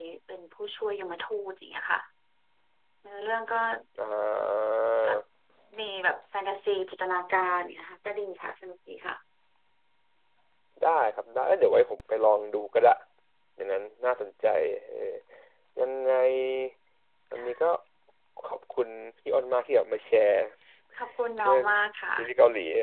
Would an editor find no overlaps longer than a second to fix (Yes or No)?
Yes